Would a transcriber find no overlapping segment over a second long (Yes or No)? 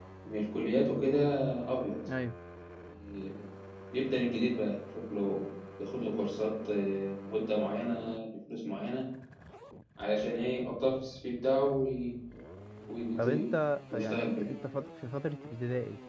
Yes